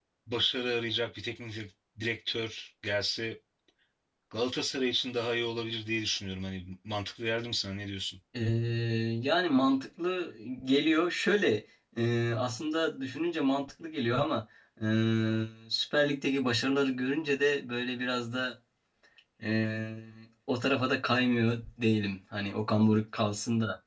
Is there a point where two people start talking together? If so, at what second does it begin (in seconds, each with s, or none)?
none